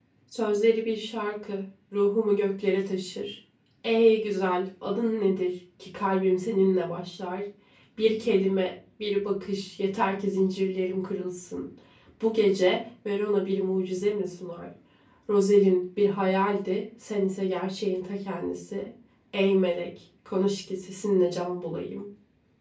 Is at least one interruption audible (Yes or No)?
No